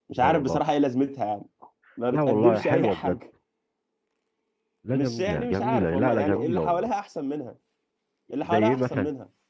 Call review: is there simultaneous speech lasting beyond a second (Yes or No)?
Yes